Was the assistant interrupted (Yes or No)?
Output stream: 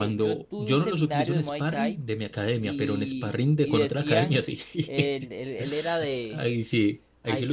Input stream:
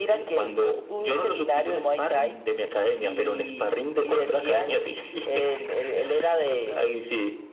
No